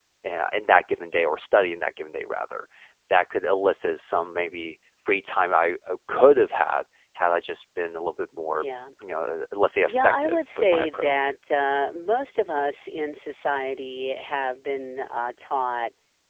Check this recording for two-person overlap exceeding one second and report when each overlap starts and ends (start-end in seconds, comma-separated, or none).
9.9-11.1